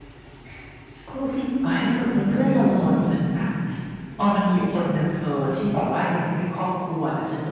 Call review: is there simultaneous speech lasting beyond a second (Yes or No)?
Yes